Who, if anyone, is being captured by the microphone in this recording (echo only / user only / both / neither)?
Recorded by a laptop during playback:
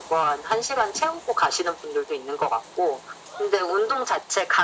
echo only